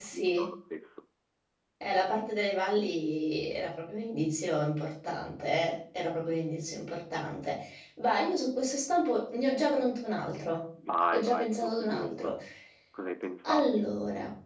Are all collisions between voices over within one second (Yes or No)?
No